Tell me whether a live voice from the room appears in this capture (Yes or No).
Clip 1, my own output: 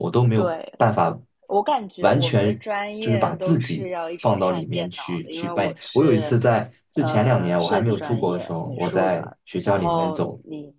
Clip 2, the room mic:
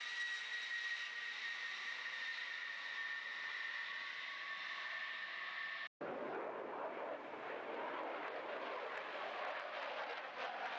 No